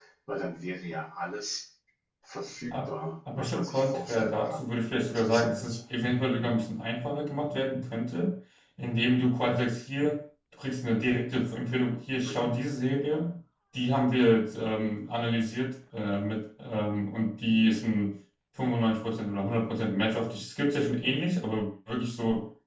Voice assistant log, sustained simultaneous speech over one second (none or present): present